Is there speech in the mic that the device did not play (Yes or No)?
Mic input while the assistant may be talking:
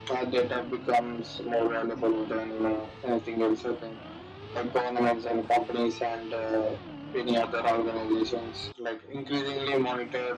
No